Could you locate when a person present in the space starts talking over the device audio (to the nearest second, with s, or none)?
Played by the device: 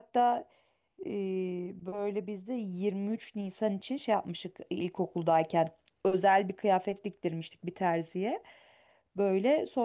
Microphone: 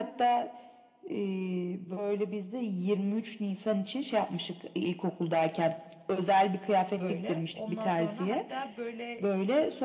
7 s